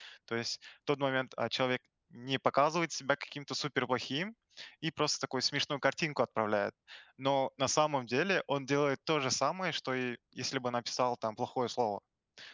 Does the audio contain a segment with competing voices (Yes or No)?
No